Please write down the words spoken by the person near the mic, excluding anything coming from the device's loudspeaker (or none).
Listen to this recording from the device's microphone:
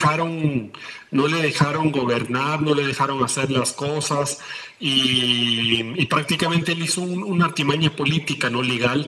none